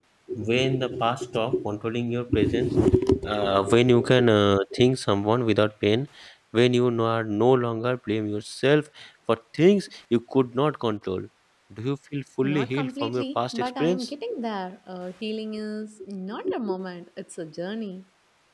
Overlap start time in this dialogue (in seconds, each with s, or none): 12.4 s